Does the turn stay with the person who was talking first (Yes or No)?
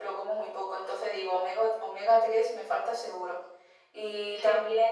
Yes